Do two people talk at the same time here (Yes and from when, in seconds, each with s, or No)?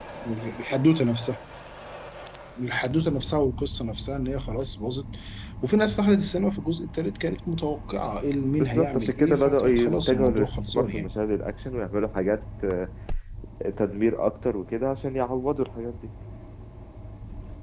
Yes, from 8.5 s